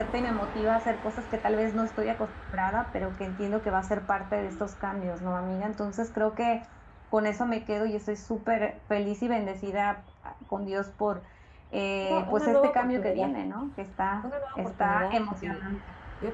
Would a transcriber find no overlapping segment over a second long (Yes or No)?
No